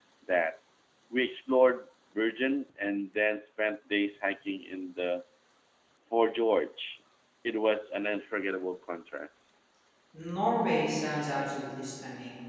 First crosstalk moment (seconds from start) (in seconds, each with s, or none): none